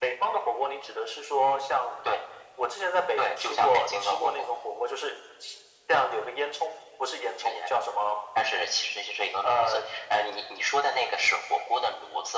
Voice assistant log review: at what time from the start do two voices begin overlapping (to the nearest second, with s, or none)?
3 s